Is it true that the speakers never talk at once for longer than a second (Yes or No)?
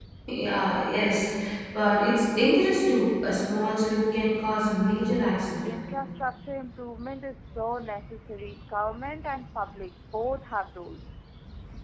Yes